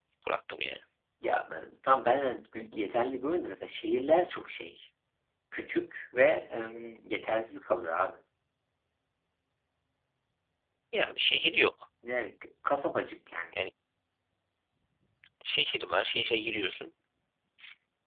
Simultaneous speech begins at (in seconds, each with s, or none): none